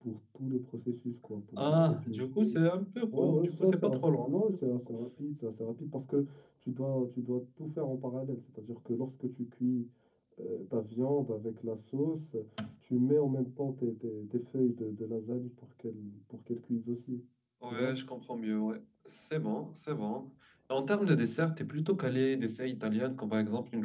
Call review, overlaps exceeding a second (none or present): present